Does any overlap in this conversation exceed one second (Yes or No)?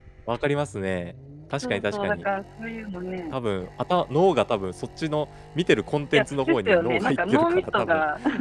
Yes